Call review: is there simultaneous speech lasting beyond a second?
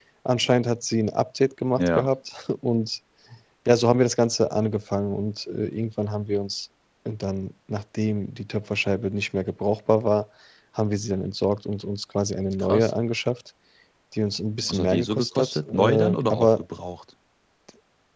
Yes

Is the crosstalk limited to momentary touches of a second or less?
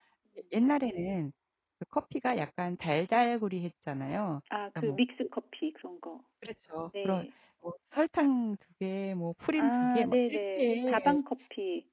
No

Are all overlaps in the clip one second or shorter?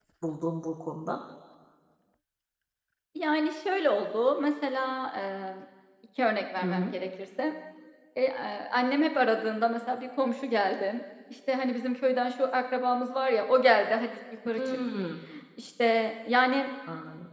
Yes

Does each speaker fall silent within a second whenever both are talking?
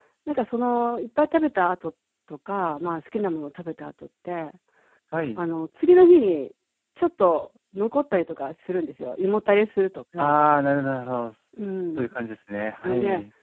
Yes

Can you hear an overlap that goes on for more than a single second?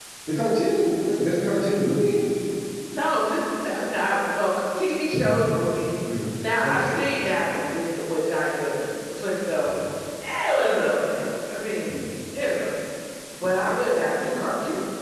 No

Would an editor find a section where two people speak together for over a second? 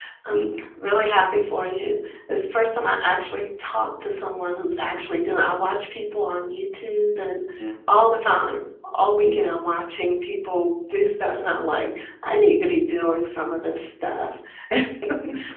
No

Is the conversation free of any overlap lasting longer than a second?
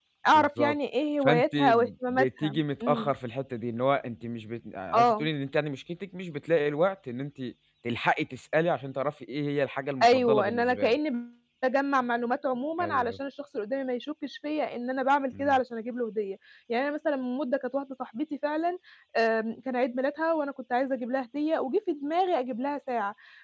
No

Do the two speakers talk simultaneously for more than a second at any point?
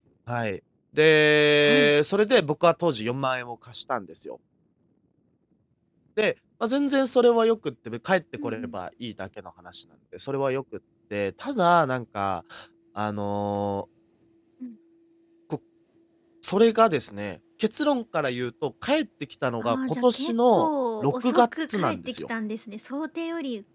Yes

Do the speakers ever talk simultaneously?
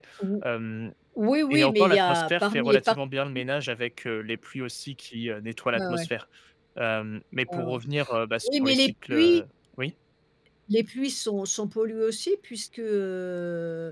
Yes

